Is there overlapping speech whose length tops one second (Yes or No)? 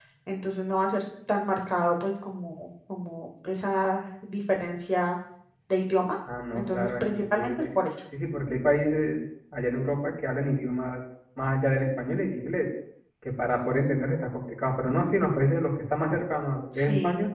Yes